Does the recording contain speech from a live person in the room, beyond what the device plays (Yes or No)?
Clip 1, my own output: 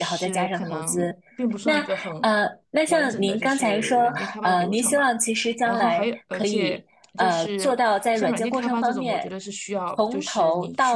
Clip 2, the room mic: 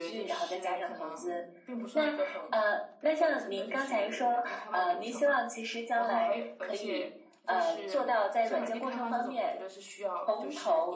No